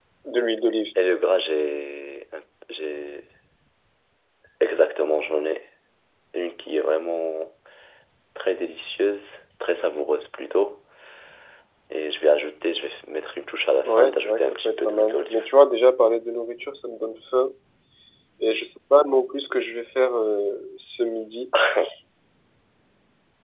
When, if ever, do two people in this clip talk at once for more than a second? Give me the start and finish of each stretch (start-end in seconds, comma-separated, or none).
13.8-15.4